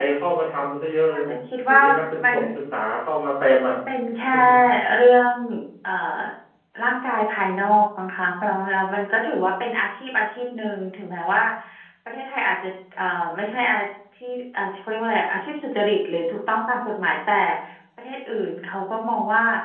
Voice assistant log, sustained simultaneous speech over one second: none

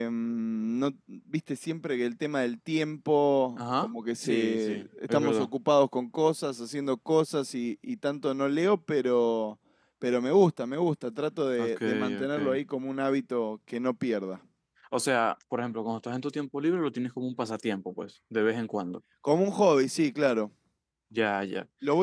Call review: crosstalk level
present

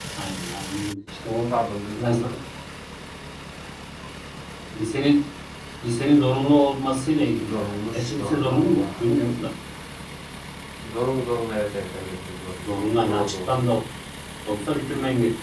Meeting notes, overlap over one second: present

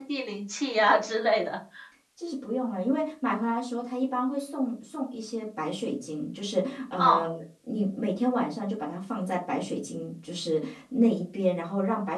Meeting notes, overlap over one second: none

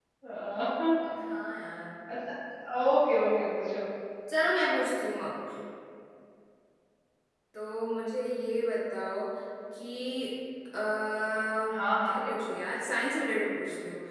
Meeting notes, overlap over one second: none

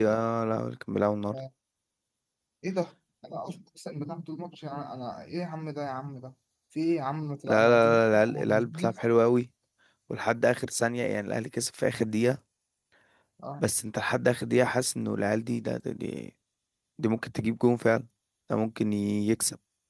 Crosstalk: present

